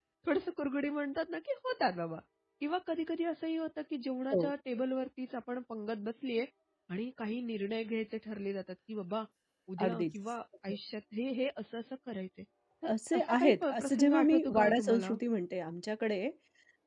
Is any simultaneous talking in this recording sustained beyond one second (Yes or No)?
Yes